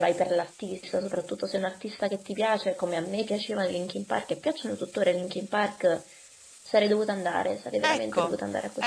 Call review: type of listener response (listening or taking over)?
taking over